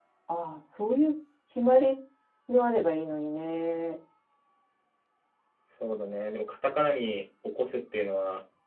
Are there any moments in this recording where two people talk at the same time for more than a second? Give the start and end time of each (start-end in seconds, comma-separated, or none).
none